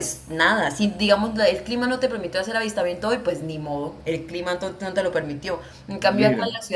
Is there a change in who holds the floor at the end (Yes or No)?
No